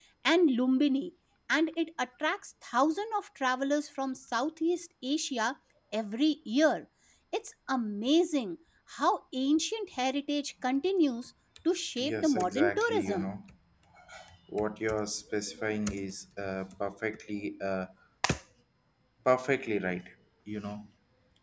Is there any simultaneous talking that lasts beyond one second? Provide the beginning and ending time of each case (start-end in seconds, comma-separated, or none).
12.0-13.3